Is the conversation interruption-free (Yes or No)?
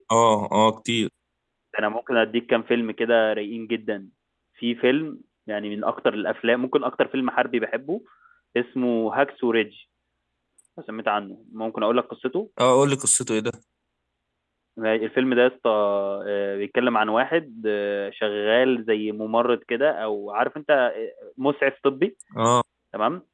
Yes